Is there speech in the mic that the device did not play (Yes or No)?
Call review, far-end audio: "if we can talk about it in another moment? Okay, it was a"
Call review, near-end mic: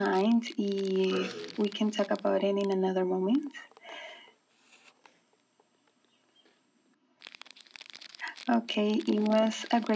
Yes